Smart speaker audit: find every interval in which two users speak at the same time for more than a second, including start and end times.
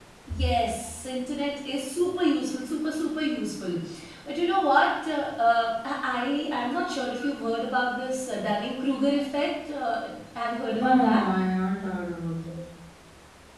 none

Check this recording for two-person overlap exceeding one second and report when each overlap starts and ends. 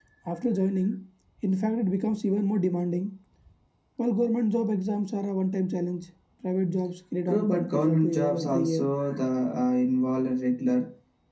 7.3-8.9

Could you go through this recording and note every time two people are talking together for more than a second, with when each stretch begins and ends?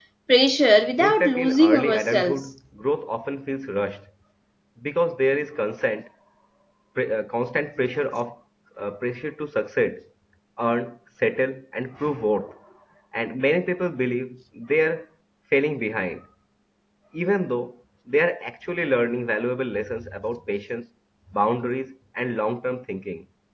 1.0-2.5

